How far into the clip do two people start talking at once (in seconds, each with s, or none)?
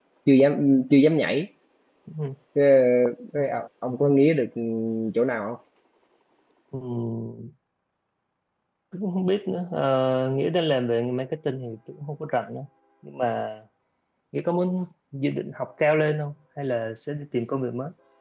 none